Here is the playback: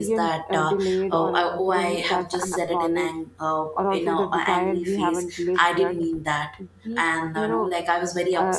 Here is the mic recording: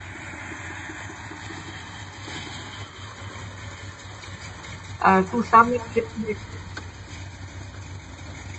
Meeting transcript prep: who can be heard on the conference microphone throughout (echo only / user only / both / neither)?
user only